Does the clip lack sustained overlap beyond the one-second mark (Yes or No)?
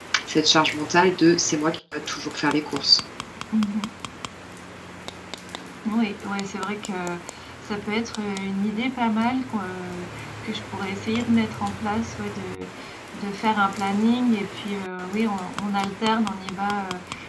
Yes